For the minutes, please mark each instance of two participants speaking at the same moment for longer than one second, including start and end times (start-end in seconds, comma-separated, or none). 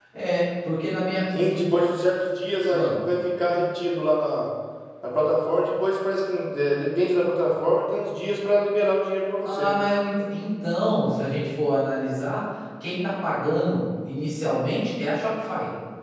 none